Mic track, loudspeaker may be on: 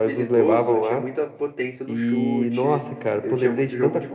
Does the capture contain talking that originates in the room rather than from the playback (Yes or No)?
Yes